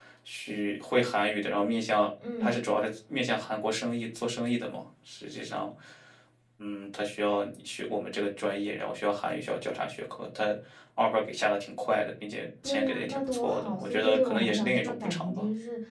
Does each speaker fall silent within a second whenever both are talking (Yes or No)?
No